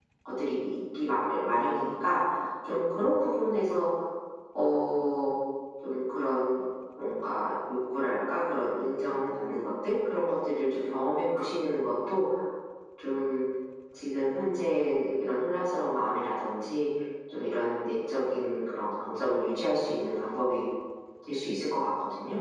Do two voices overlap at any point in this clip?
No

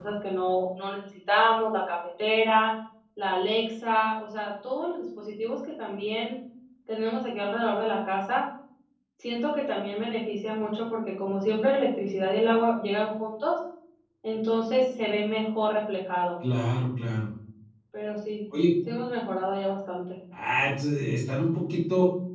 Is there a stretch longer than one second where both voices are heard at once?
No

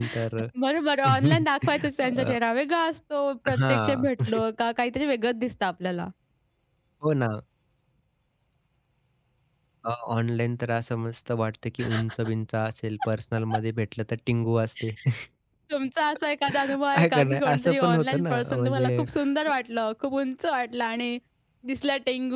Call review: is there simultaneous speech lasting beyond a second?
Yes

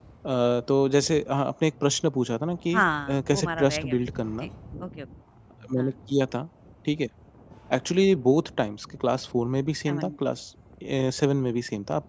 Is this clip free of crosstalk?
No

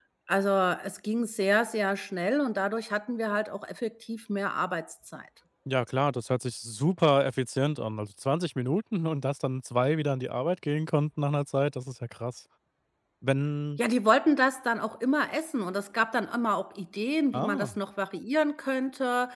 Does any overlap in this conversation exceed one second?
No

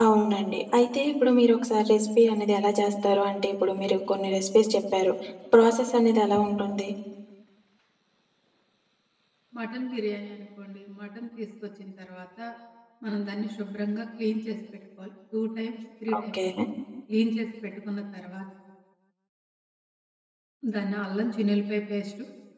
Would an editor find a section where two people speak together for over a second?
No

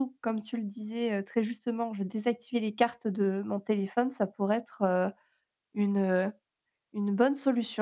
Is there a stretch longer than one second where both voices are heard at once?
No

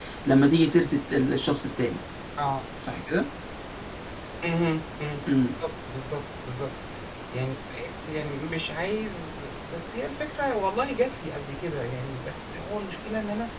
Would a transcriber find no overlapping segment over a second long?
Yes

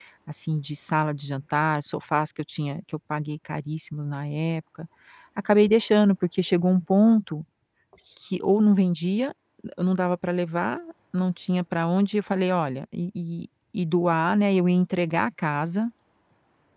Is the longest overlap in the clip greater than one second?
No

